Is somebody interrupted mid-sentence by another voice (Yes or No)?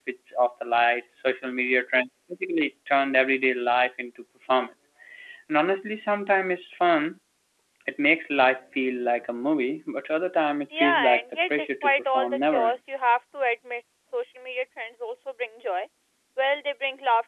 Yes